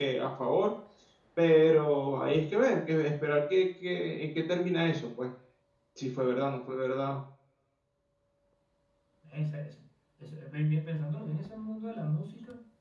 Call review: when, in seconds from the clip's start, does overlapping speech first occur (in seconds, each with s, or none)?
none